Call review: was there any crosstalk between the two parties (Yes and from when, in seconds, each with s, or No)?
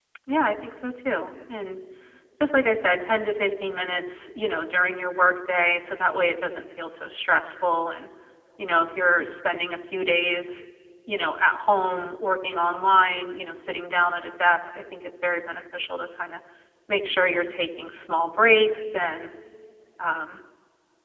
No